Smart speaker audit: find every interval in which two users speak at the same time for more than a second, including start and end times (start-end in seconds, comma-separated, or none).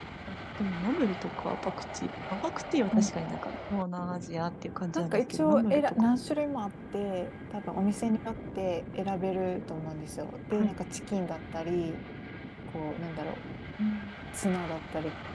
4.9-6.2